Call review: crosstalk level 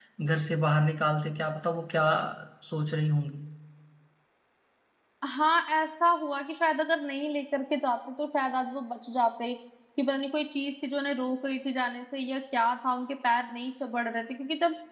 none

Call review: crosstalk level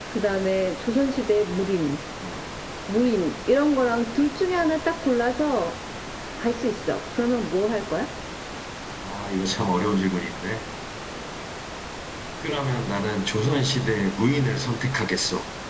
none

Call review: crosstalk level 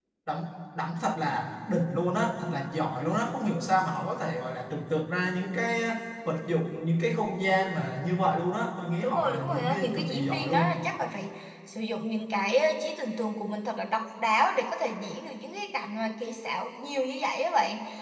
present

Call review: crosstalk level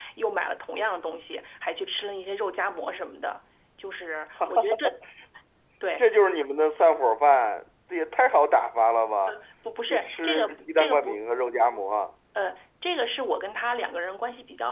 present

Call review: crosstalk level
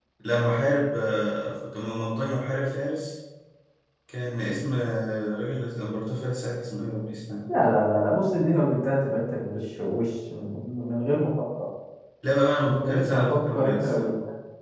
present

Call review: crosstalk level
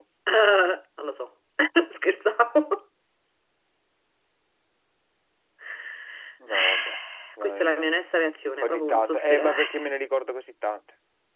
present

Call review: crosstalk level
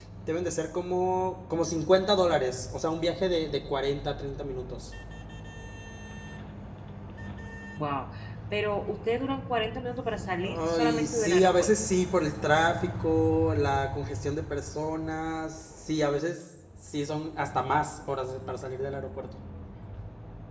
present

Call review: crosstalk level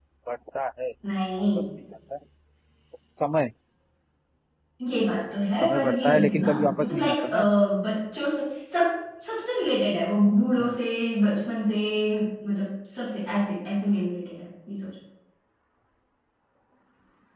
present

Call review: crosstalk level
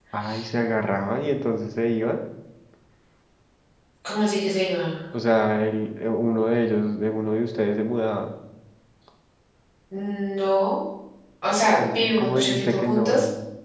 present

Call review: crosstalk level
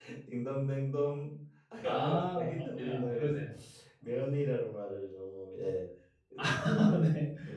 present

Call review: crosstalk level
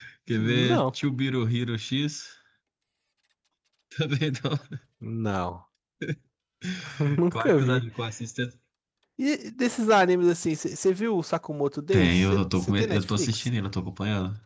present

